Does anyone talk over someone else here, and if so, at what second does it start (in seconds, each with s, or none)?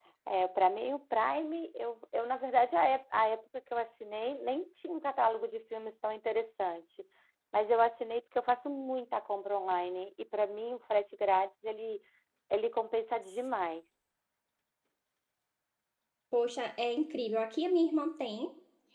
none